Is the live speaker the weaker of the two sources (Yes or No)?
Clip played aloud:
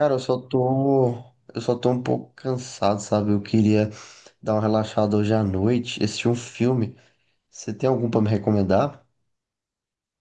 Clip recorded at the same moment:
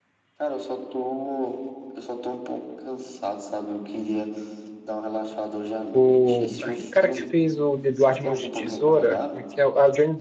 No